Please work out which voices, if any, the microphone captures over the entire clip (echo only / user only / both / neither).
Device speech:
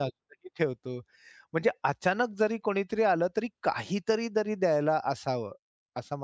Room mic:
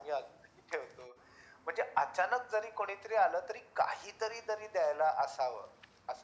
echo only